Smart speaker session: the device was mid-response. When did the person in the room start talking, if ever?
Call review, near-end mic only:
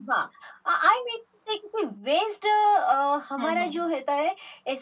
3.4 s

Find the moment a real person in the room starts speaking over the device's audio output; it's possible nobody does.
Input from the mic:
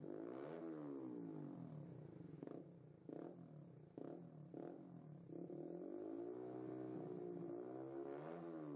none

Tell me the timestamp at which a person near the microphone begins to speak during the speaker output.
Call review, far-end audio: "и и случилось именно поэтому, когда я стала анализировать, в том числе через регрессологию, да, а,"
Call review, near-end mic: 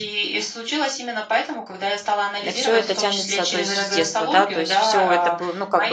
2.5 s

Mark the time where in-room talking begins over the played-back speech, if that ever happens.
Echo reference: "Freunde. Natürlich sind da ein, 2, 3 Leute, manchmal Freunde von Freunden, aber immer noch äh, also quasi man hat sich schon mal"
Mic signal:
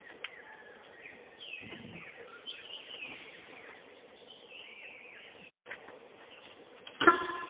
none

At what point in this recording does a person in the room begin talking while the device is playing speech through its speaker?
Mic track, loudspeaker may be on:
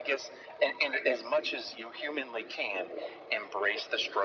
none

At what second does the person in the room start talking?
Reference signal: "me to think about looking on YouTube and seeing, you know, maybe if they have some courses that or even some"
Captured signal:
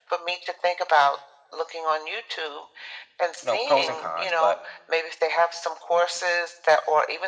3.4 s

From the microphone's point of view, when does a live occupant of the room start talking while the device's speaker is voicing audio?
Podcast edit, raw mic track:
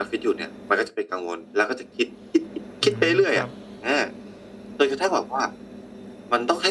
2.8 s

